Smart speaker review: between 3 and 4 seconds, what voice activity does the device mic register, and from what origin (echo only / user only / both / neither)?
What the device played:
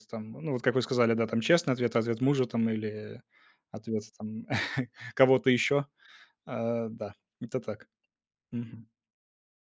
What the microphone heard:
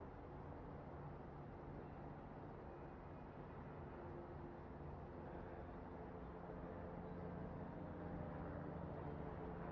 neither